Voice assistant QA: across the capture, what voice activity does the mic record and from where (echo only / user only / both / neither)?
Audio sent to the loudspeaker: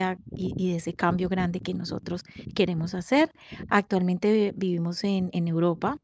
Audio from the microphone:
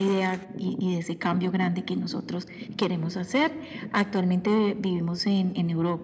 echo only